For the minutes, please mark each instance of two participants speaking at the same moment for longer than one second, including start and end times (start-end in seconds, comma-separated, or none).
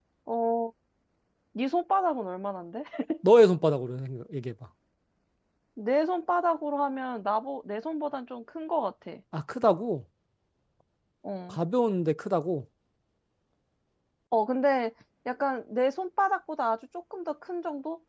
none